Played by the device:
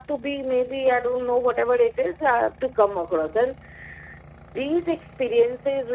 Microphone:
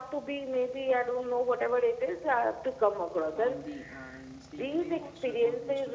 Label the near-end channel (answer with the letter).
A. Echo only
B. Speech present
B